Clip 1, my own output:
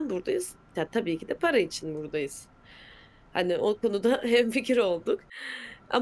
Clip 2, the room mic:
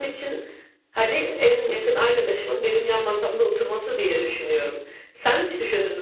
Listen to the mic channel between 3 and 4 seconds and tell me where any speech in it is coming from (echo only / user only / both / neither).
user only